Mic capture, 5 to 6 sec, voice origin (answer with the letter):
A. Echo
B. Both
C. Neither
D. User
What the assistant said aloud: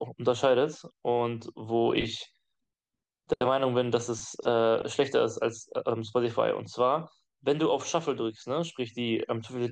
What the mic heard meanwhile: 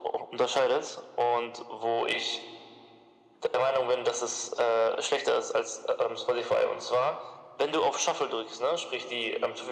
A